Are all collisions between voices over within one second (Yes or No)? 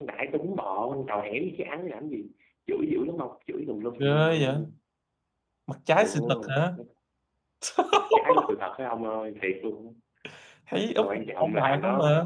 No